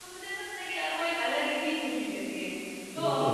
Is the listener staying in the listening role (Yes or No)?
Yes